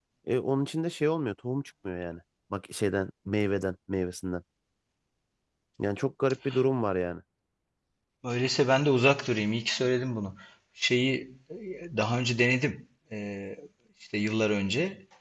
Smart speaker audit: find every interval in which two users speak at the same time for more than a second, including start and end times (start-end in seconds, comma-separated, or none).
none